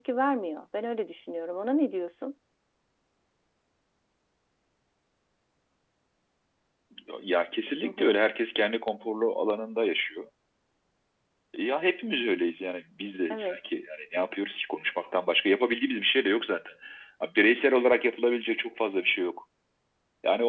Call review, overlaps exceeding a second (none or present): none